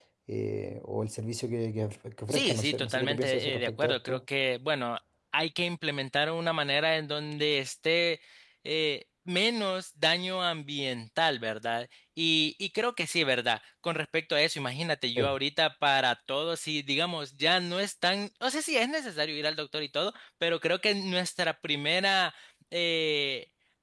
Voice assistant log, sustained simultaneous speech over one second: present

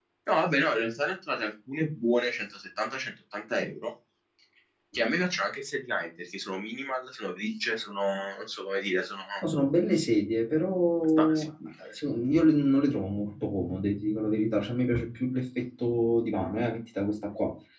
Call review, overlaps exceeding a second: none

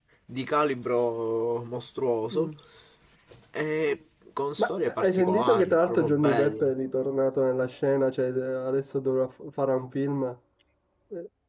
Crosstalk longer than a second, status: present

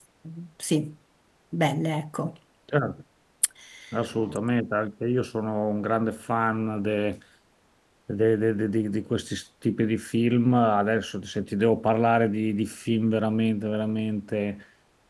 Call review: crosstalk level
none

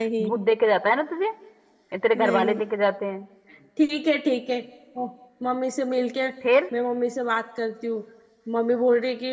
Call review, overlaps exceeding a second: none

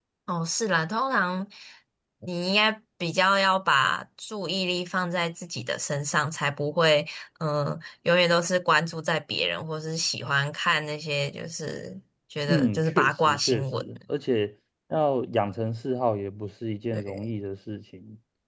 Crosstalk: present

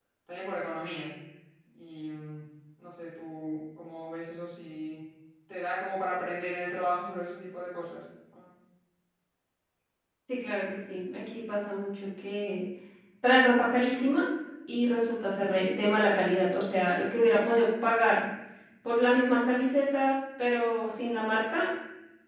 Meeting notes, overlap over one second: none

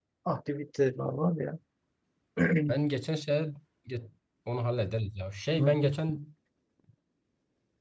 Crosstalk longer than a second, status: none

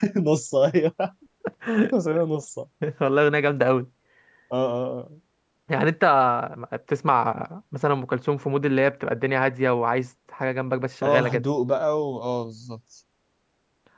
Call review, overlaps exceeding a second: none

